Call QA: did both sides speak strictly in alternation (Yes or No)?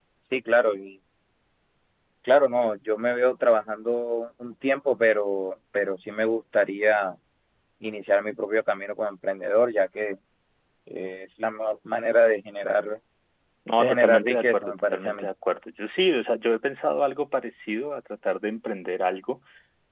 No